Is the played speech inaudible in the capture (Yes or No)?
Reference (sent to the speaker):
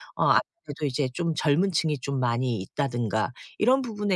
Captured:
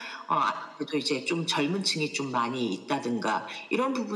No